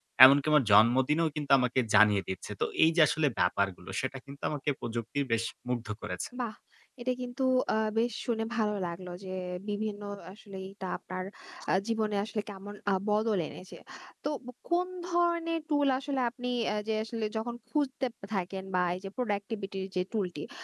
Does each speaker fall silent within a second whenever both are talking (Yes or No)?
Yes